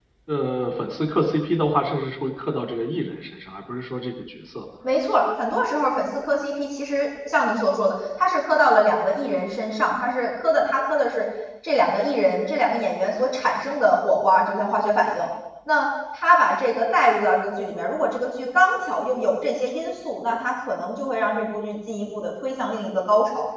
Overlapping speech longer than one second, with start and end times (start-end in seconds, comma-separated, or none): none